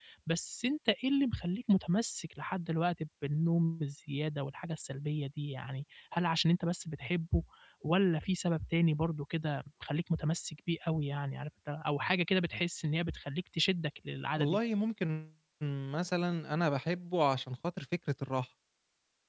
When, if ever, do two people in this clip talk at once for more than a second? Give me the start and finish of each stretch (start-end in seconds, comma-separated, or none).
none